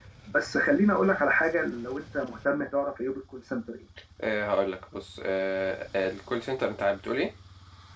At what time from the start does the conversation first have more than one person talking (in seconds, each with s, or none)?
none